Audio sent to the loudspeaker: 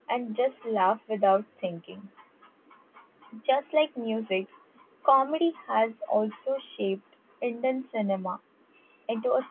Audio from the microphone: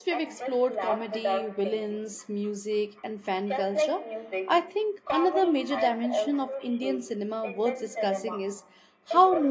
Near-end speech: present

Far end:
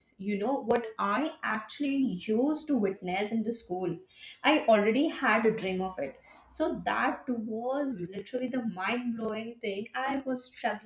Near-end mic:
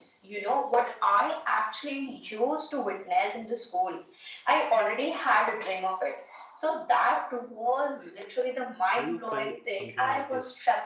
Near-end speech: present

